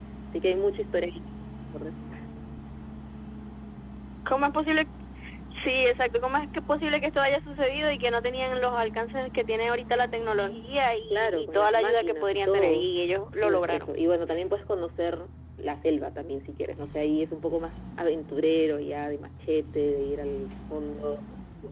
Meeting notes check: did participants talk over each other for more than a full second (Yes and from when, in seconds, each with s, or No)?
Yes, from 11.1 s